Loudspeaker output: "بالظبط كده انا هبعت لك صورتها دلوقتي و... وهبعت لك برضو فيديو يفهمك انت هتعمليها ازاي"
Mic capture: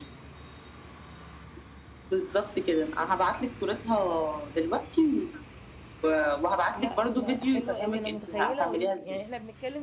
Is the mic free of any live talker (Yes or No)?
No